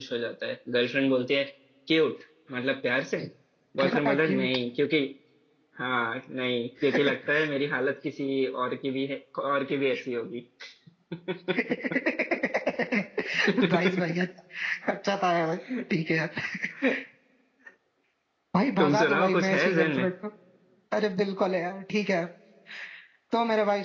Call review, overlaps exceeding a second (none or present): present